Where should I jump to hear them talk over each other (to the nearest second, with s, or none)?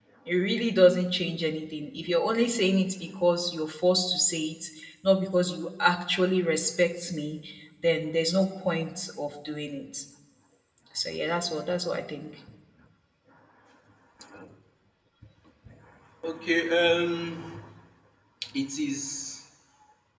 none